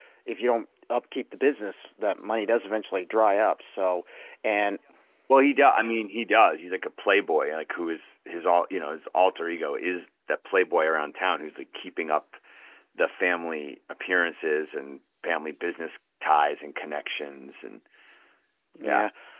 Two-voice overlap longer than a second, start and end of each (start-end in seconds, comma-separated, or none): none